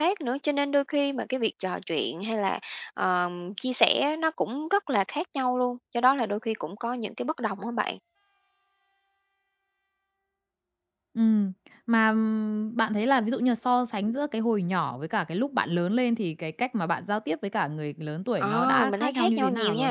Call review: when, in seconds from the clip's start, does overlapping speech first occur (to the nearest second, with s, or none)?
18 s